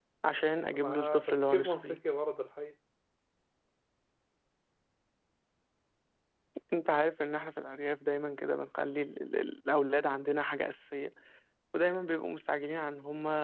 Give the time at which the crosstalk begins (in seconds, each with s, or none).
0.7 s